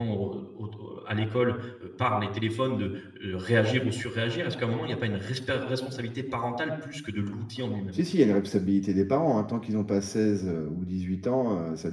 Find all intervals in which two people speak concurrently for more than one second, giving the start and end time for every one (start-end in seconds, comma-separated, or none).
none